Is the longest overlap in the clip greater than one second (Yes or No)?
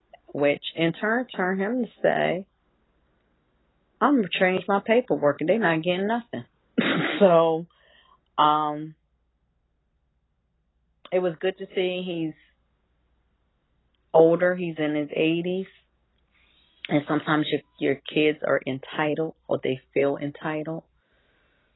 No